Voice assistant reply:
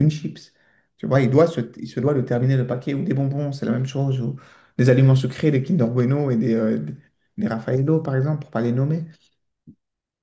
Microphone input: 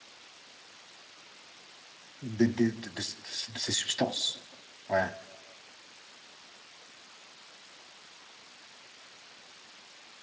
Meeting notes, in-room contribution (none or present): present